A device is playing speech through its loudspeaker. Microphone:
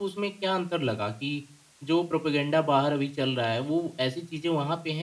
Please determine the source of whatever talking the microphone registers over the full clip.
user only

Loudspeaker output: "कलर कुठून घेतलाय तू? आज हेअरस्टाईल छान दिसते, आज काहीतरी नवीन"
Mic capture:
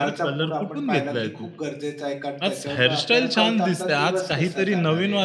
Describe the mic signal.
both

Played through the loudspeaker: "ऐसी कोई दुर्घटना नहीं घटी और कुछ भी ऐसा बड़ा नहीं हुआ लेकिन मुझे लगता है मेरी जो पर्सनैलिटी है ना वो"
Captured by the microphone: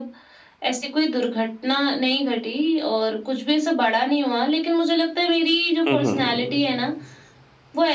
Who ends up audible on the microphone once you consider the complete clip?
both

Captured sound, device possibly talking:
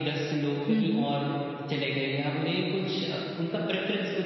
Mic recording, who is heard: both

